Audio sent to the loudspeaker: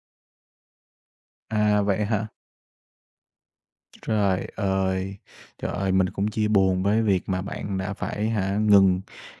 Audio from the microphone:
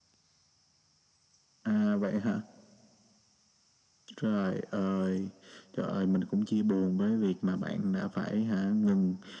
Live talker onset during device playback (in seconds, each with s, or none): none